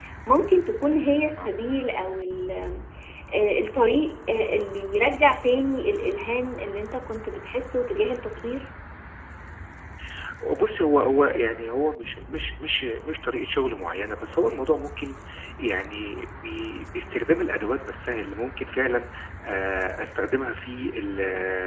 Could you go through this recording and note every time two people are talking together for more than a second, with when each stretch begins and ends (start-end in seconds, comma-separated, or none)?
none